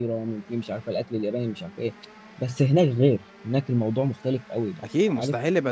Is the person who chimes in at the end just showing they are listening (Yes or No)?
No